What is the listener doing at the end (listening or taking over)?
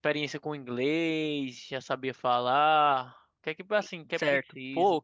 taking over